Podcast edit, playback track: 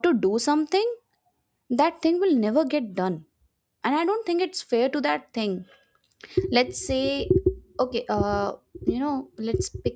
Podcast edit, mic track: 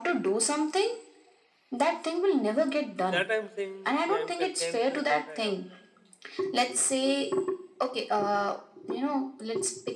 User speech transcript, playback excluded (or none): that I'm saying yeah, I'm content with what I have.